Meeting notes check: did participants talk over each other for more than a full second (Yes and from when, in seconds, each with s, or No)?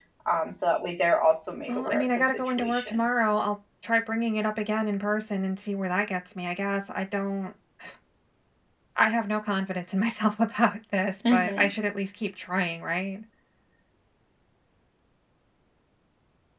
Yes, from 1.7 s